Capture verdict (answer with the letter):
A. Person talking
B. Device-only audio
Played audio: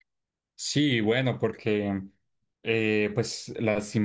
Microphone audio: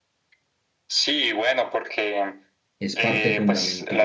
A